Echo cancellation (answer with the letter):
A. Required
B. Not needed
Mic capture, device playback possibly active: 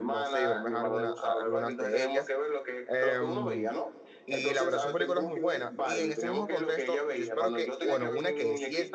A